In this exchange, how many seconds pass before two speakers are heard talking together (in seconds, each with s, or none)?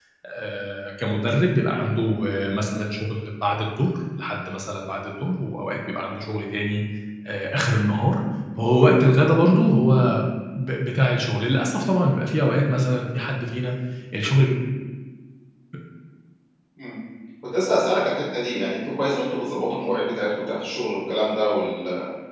none